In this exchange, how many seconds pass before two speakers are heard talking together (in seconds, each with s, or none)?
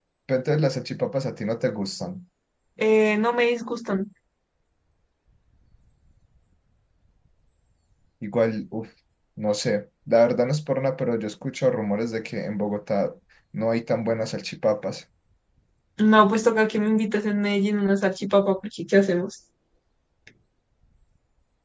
none